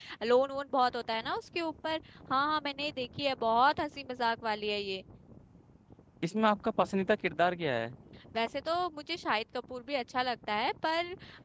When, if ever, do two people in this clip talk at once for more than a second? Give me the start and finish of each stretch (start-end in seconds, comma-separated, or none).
none